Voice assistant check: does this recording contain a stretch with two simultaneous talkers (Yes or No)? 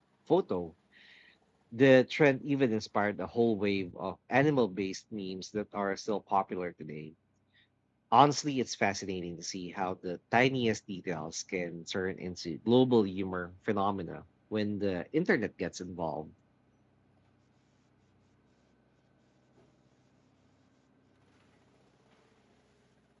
No